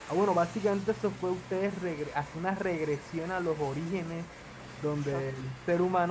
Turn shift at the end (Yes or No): No